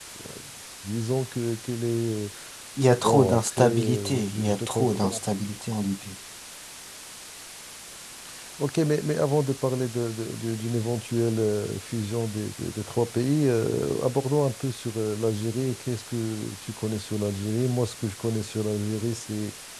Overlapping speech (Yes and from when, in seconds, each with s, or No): Yes, from 3.0 s